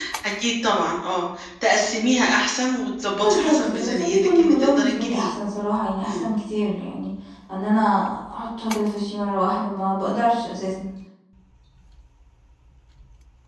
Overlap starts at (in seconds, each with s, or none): 3.2 s